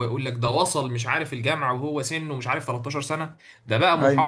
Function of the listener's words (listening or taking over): listening